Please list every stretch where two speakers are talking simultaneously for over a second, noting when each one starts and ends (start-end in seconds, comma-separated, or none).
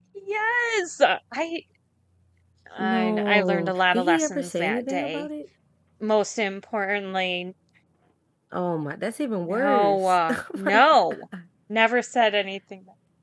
2.8-5.3, 9.5-10.8